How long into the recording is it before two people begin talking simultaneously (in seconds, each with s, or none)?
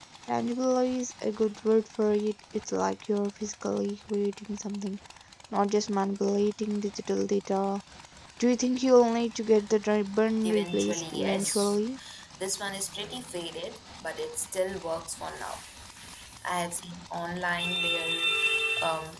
10.4 s